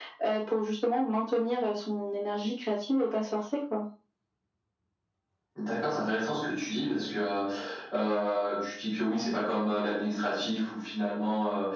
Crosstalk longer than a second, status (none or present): none